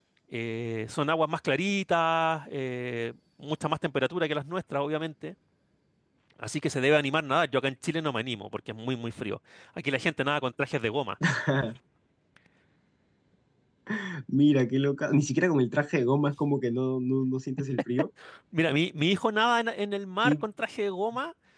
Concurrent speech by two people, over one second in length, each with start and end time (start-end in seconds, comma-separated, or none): none